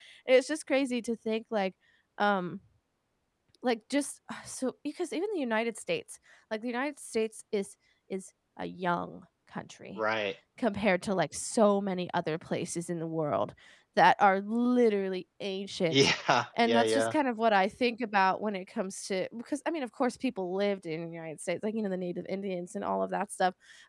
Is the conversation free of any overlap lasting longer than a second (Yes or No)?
Yes